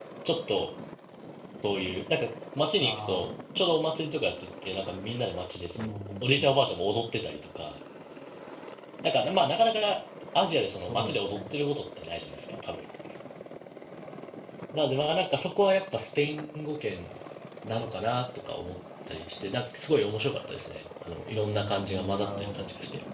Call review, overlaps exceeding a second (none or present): present